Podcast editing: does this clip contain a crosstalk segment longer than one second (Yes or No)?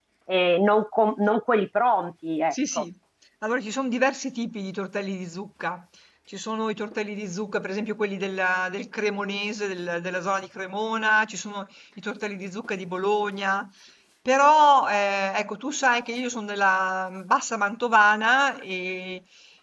No